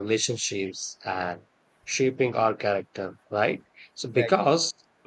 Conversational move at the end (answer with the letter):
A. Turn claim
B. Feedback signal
B